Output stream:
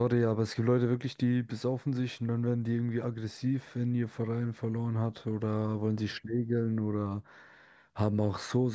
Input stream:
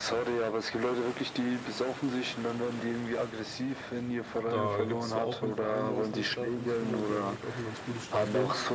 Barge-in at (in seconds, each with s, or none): 4.3 s